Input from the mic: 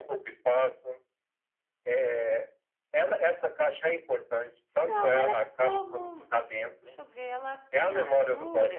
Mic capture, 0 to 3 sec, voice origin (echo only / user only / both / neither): echo only